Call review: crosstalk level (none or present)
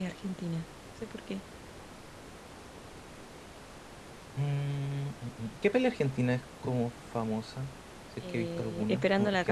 present